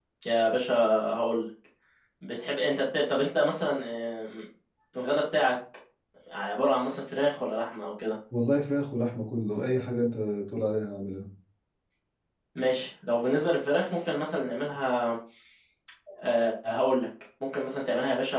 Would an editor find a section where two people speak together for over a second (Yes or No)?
No